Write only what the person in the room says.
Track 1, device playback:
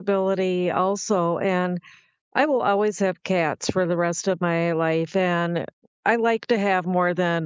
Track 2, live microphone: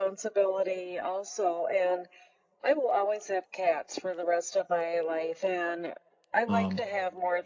um,

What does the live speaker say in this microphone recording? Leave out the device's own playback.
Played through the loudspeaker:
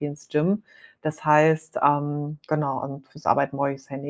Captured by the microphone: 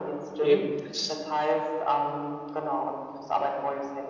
eben, das

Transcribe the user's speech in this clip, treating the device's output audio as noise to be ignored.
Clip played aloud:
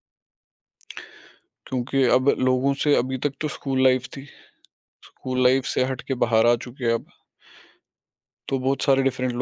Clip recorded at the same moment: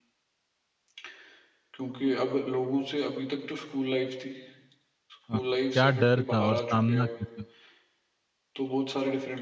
हाँ, क्या डर था और सामना कैसे हुआ?

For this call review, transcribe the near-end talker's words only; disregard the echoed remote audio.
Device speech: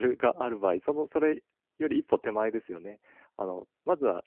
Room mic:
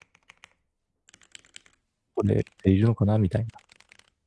取れているのかなみたいな

